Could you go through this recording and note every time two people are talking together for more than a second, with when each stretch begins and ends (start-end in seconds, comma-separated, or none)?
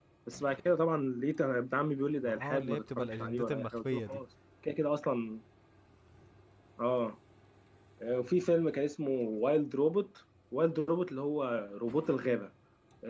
2.2-4.2